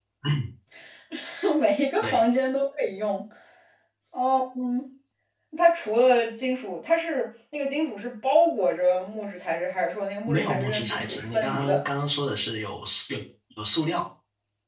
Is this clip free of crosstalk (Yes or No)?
No